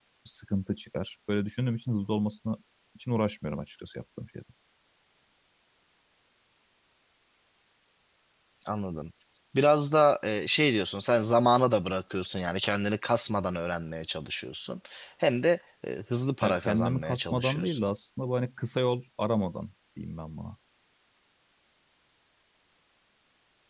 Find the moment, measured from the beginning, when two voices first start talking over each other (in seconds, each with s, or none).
16.4 s